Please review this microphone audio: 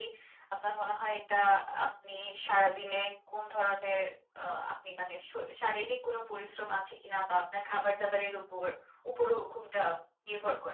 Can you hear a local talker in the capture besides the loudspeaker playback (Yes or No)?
No